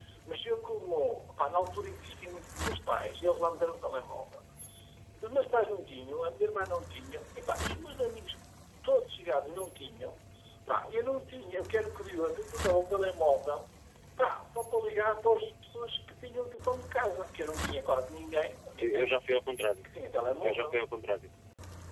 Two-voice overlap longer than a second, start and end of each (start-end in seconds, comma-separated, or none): none